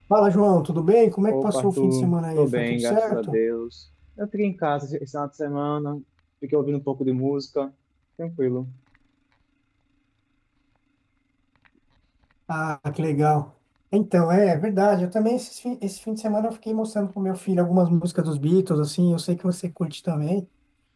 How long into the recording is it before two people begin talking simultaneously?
1.3 s

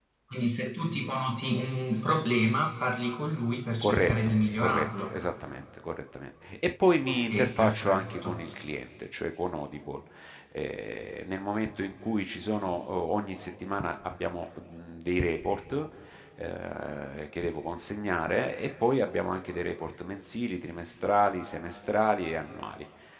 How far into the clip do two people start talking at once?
3.8 s

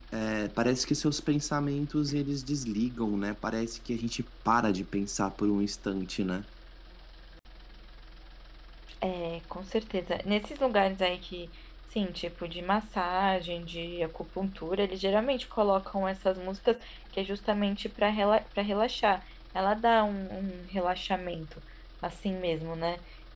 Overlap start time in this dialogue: none

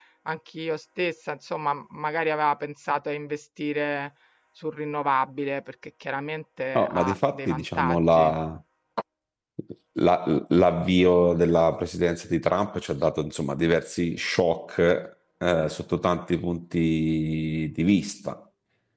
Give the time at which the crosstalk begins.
6.8 s

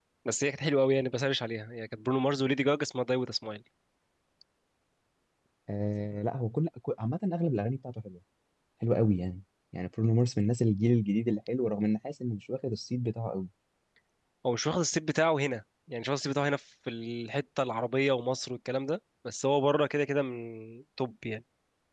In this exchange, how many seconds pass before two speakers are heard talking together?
none

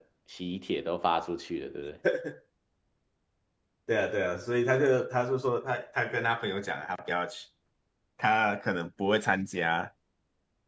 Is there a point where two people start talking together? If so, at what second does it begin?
none

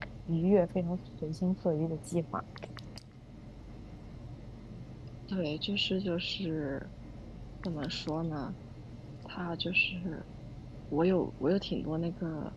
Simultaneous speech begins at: none

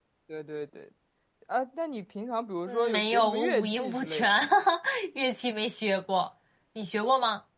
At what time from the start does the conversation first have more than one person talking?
2.7 s

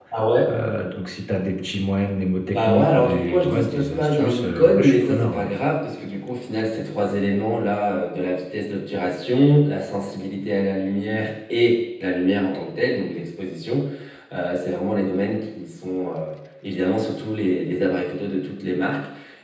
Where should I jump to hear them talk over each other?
2.5 s

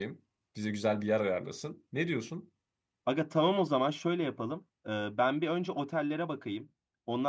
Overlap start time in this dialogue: none

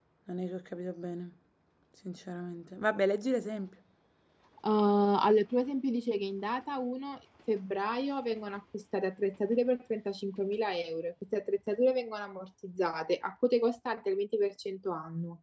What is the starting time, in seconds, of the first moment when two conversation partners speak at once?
none

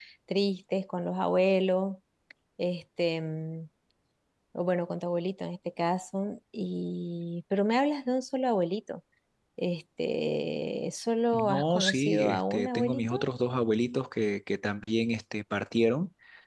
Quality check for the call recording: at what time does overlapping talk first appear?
11.3 s

